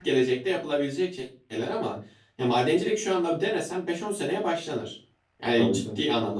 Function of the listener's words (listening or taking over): listening